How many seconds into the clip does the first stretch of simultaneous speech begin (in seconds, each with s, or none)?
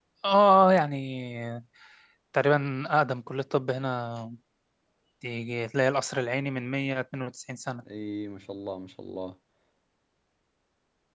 none